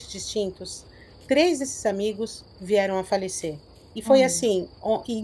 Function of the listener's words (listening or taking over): listening